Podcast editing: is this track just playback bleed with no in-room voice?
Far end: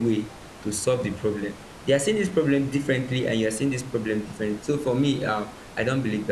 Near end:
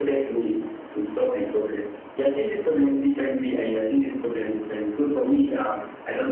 Yes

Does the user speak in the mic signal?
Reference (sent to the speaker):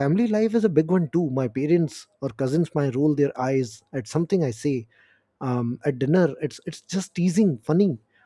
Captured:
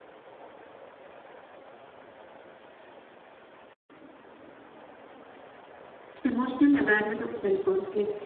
Yes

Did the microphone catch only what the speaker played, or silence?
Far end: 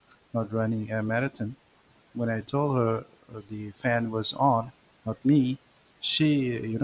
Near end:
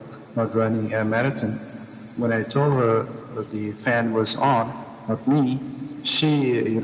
Yes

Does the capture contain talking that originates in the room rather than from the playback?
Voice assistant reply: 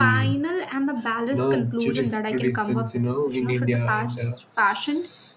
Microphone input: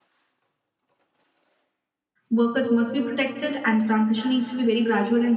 Yes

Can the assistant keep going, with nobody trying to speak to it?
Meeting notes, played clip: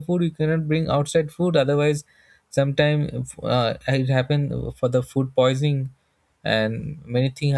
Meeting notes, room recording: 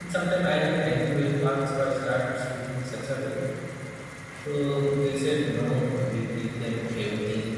No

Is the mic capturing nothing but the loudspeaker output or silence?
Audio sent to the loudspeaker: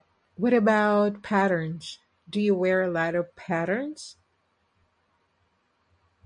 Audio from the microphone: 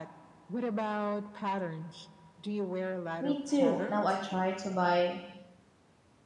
No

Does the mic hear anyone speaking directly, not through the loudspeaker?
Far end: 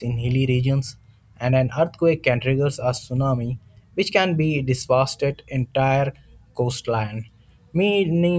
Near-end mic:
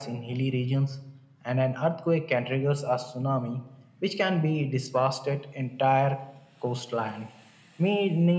No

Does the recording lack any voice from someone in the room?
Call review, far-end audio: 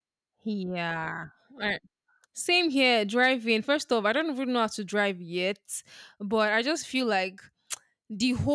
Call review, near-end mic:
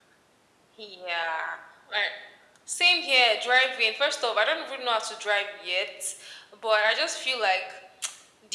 Yes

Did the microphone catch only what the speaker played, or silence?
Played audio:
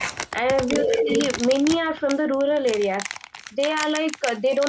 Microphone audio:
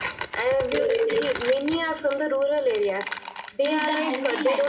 No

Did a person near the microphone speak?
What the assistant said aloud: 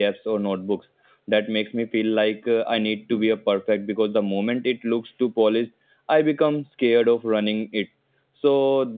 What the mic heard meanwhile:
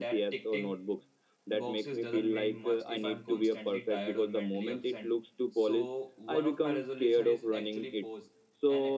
Yes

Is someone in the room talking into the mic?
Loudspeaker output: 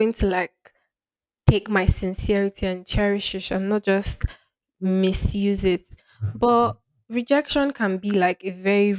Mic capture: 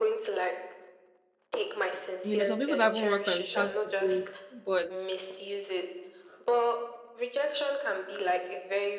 Yes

